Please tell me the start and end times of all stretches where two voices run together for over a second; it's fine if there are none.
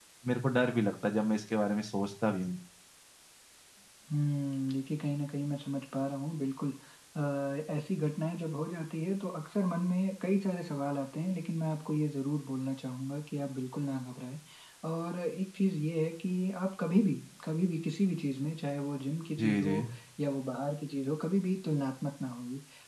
none

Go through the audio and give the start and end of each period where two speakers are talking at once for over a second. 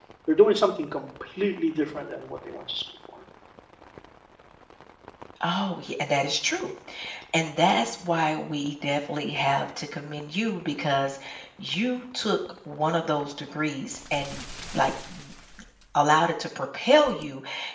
none

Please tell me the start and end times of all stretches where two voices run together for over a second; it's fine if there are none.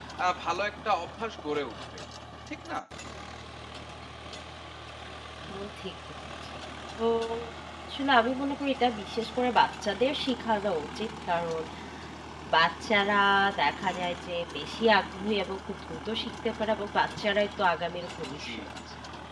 none

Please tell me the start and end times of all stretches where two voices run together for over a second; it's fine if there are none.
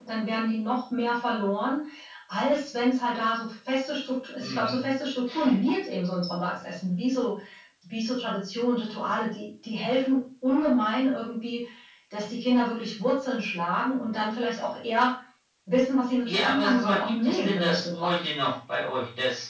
16.2-18.3

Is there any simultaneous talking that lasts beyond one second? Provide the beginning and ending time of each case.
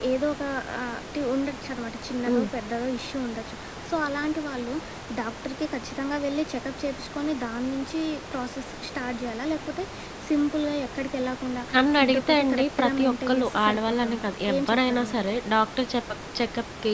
11.9-15.2

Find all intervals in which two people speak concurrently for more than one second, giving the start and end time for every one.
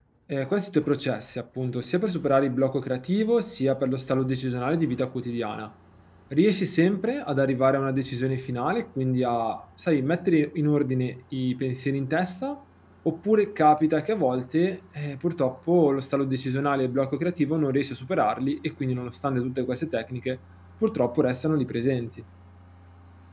none

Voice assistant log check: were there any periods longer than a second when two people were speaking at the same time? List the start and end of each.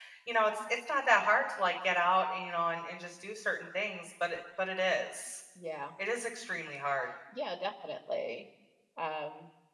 none

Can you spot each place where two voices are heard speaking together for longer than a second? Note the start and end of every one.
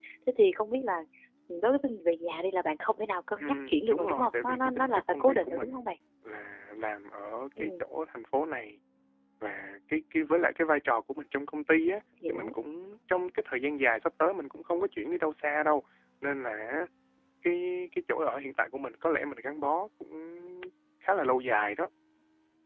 3.4-5.8

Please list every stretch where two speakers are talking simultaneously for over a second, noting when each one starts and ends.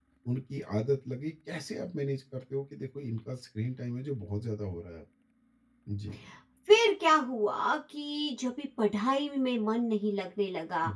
none

